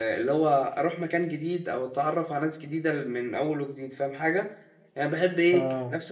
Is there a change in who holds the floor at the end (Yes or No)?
No